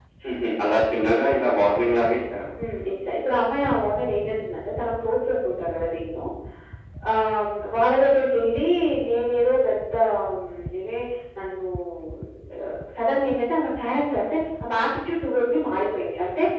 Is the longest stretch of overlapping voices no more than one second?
Yes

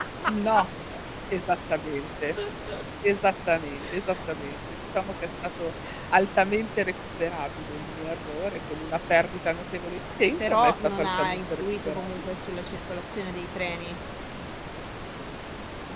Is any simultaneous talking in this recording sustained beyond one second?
Yes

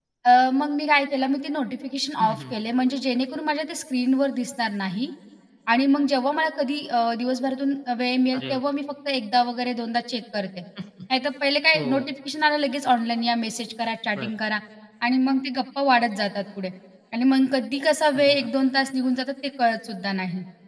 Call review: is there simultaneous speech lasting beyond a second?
No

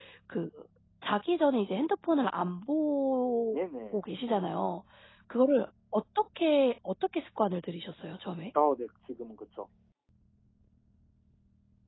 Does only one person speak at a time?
Yes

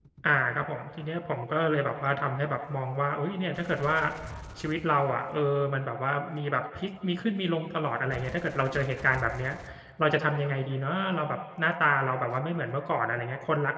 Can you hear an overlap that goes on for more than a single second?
No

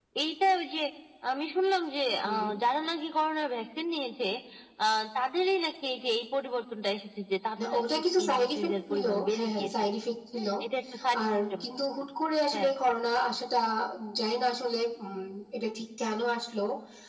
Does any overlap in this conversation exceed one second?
Yes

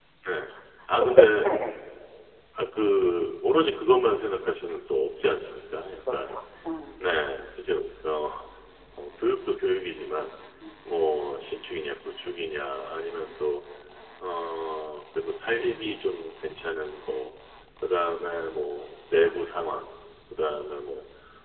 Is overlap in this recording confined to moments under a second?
Yes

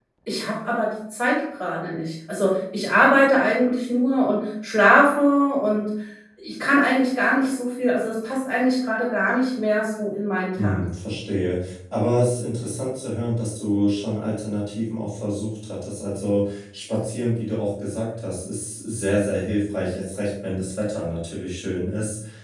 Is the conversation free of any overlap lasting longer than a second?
Yes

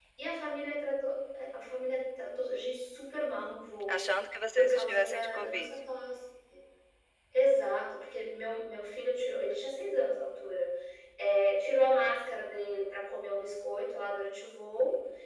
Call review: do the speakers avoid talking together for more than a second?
No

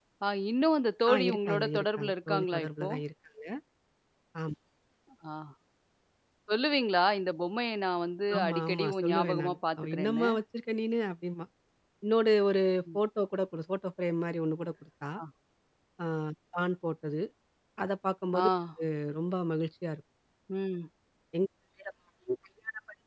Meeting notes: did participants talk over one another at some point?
Yes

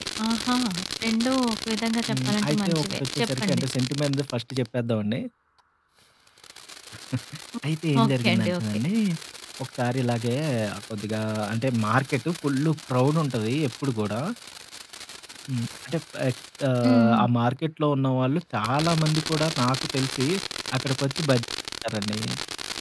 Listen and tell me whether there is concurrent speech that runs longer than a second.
Yes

